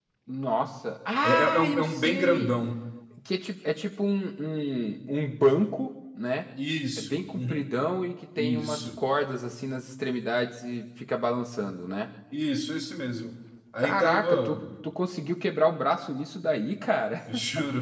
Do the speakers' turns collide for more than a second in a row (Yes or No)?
Yes